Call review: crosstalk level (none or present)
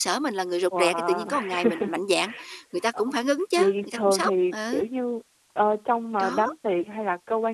present